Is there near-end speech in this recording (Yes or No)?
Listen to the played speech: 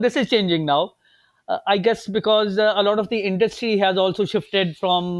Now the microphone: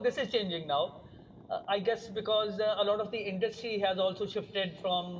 No